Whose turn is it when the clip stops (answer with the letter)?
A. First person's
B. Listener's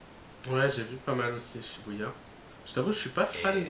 A